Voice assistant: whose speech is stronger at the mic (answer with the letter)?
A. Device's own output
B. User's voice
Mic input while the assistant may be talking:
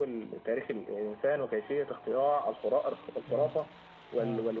A